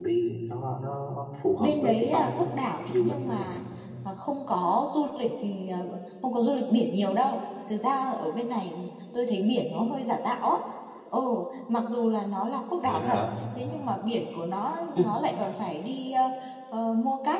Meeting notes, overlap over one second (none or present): present